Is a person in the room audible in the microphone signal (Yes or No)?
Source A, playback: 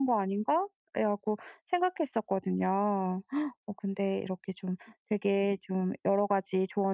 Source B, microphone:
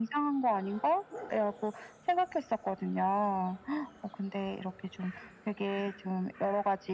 No